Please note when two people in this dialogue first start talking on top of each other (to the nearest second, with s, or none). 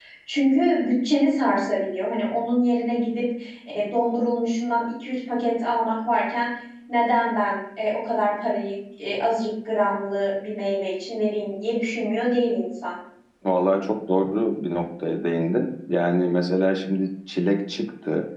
none